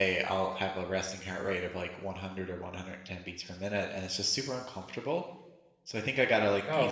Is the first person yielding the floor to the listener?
No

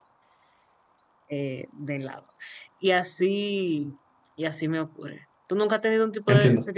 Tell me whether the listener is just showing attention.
Yes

